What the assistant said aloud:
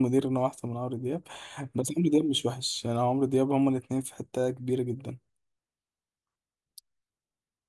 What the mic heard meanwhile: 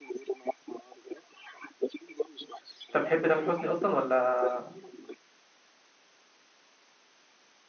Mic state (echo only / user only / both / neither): both